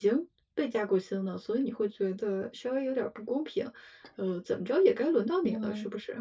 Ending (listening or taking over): taking over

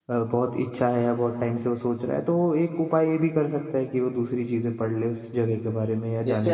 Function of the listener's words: taking over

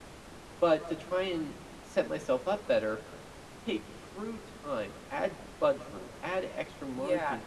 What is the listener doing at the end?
listening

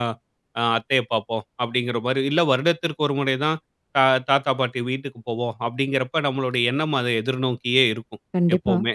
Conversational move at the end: listening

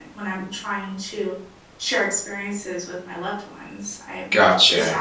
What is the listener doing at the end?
taking over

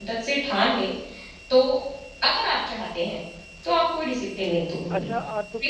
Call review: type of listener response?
taking over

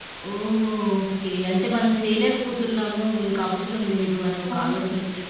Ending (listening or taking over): taking over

